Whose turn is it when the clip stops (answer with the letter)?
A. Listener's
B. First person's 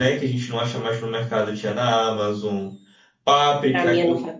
A